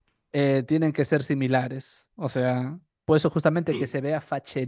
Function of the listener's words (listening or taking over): listening